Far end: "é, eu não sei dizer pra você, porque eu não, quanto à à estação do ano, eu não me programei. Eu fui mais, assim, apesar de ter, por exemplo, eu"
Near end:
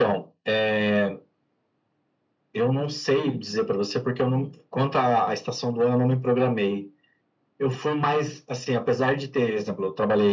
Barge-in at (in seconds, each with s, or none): none